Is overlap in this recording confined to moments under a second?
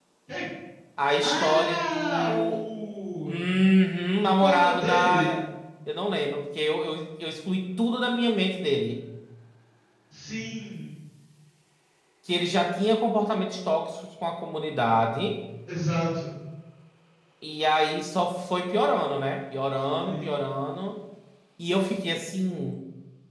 No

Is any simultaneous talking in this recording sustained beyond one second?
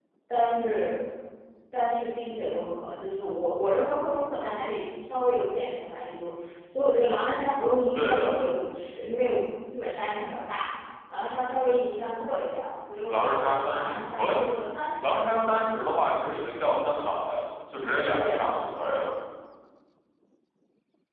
Yes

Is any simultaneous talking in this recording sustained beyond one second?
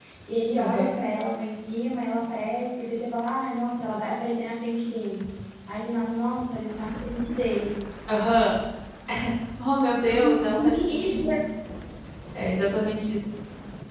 Yes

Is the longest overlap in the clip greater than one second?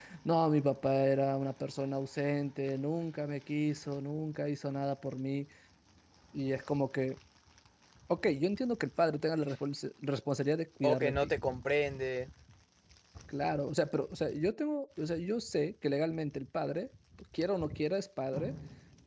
No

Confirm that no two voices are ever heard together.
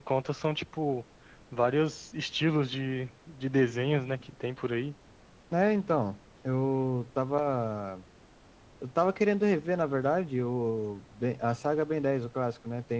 Yes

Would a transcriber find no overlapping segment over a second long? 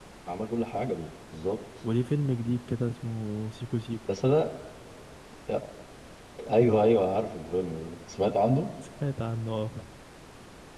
Yes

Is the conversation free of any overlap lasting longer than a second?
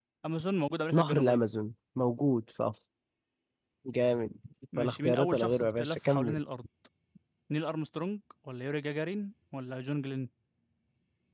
No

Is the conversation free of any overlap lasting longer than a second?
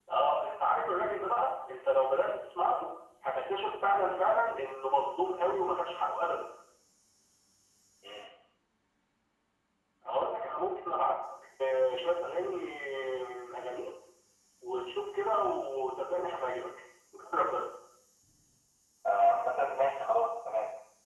Yes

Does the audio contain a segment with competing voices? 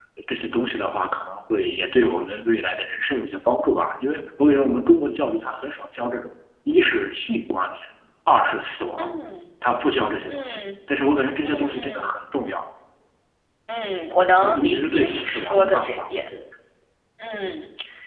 Yes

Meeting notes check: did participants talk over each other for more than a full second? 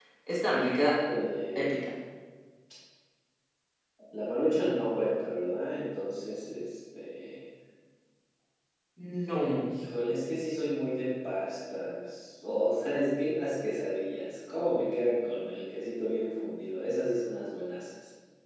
No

